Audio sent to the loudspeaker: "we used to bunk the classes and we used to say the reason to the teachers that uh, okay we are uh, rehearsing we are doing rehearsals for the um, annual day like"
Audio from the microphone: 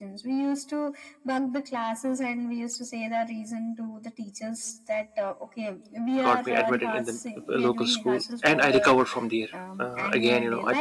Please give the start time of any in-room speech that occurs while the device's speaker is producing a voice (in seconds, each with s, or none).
6.2 s